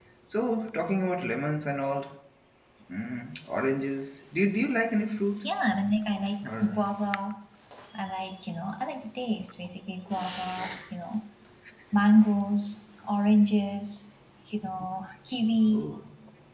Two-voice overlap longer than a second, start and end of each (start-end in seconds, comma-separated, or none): none